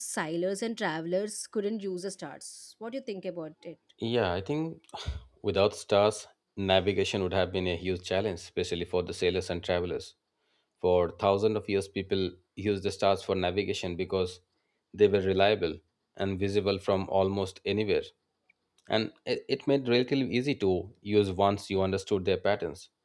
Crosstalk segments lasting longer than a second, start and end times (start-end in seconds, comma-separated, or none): none